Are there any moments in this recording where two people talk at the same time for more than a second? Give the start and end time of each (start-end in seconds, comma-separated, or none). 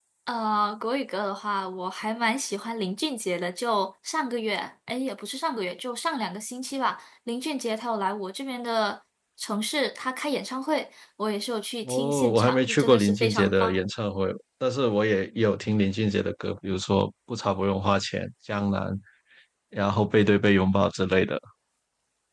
11.8-13.8